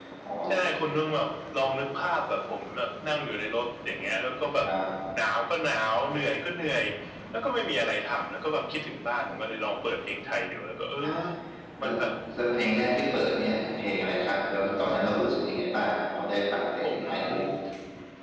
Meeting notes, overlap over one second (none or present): none